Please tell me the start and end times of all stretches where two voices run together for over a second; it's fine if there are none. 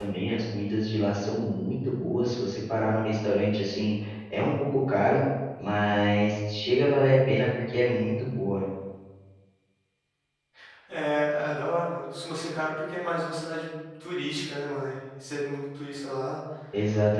none

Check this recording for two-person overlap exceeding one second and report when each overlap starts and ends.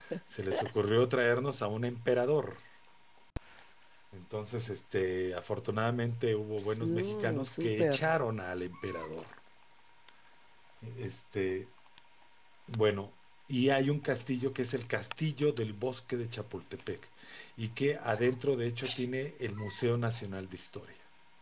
6.6-8.0

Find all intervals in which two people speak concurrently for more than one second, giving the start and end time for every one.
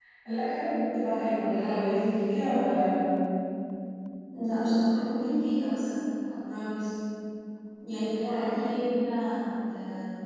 none

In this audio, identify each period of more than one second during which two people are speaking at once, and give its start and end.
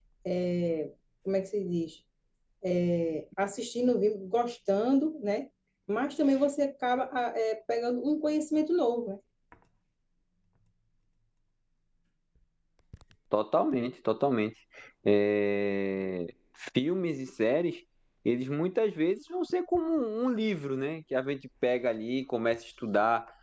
none

